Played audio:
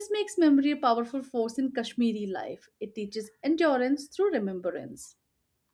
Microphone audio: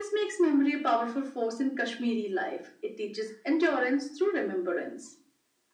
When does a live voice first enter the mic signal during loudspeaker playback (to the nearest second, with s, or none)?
none